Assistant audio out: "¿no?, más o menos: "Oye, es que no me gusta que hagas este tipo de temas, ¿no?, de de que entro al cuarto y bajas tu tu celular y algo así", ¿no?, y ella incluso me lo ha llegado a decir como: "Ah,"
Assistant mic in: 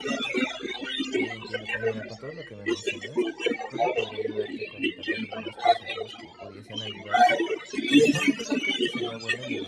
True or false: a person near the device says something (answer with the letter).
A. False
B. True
B